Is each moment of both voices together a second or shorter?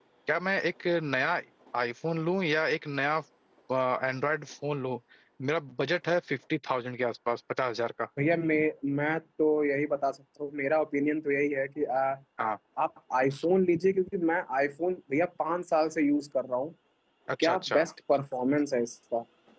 Yes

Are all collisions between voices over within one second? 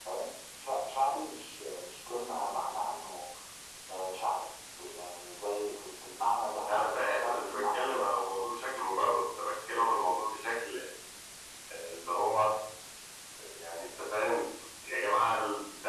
No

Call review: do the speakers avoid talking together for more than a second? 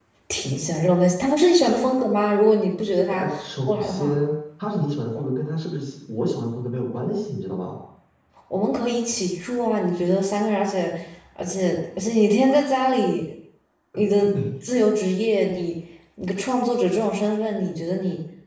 Yes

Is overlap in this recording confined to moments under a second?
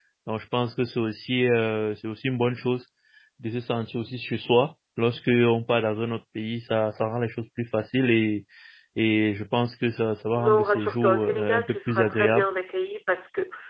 No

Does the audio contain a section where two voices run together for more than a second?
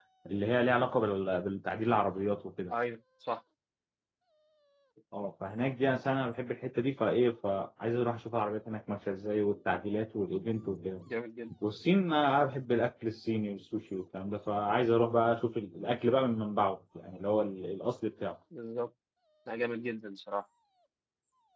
No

